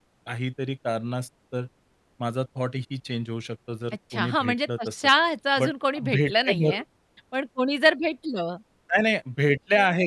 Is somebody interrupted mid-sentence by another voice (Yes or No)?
Yes